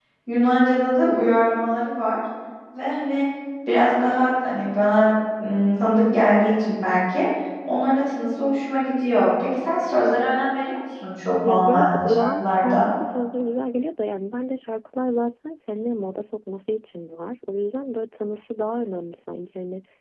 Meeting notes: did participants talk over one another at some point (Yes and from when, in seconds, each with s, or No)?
Yes, from 11.4 s